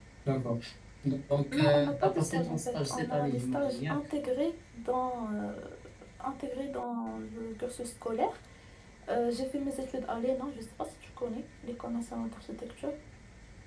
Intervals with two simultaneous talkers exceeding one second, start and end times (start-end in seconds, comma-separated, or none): 1.5-4.0